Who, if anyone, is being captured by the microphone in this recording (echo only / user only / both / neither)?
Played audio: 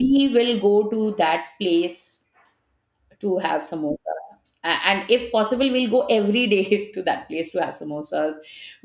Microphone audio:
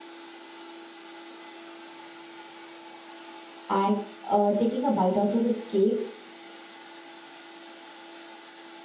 user only